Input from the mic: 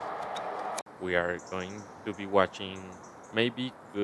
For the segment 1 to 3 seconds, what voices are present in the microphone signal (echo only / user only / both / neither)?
user only